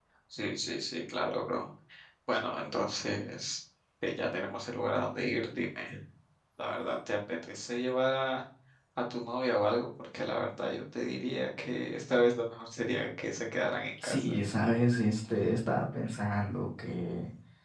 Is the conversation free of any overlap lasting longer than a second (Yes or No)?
Yes